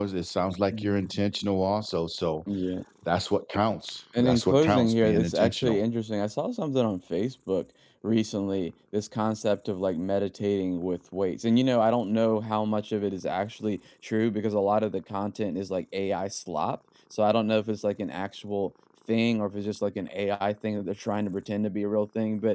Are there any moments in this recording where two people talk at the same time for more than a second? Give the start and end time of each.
4.2-5.8

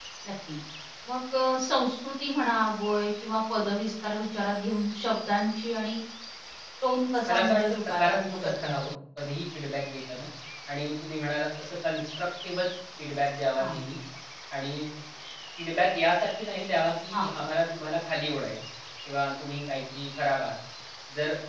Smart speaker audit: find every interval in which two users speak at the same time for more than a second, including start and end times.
7.3-8.9

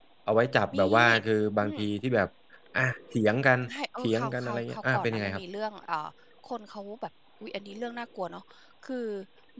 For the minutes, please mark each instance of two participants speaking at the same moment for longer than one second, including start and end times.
4.0-5.4

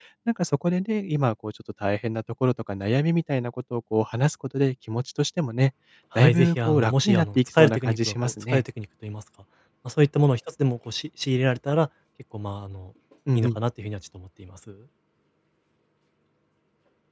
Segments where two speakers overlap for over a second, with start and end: 6.2-8.6

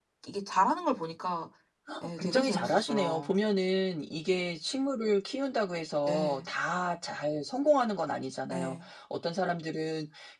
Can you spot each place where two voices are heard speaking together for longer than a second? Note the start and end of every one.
2.0-3.3

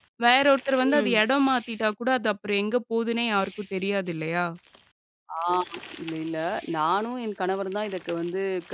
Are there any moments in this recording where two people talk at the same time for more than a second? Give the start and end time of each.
none

